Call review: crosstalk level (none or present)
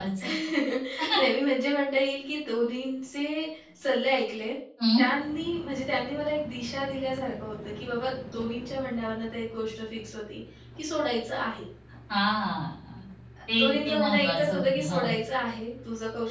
present